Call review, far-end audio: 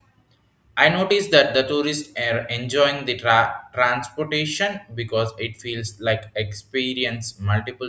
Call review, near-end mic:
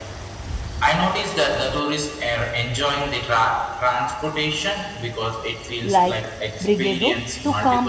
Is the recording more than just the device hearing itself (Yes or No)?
Yes